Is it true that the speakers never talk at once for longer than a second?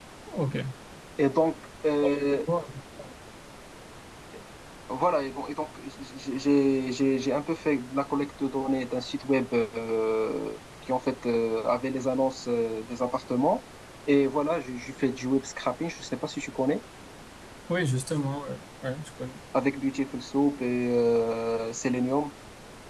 Yes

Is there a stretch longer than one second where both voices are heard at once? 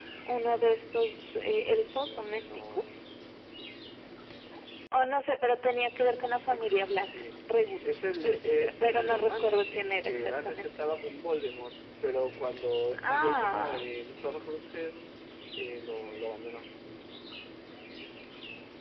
Yes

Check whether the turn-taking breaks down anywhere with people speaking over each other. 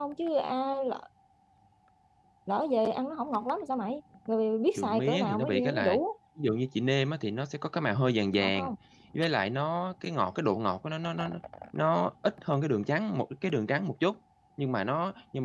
Yes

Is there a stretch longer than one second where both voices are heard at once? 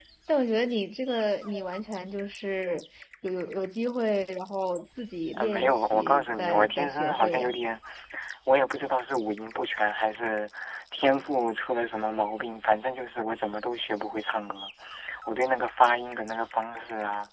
Yes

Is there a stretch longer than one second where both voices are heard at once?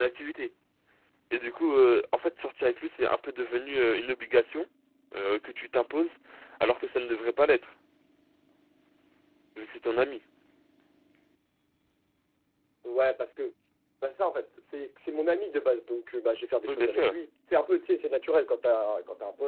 No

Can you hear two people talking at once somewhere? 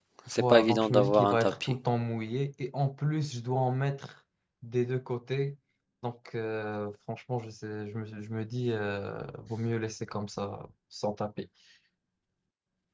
Yes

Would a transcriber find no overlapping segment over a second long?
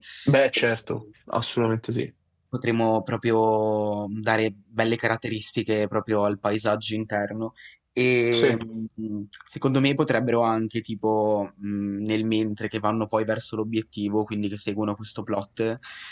Yes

